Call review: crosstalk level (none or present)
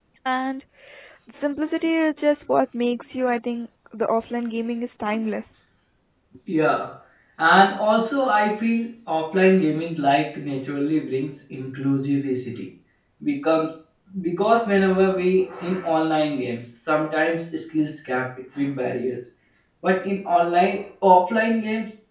none